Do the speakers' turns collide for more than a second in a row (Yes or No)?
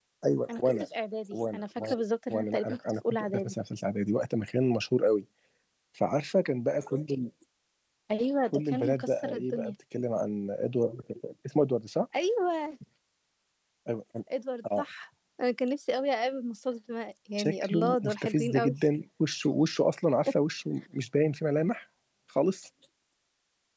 Yes